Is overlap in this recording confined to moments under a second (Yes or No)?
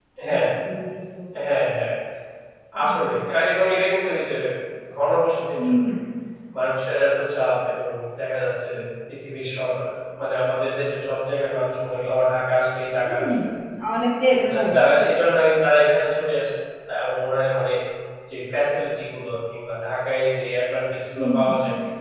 Yes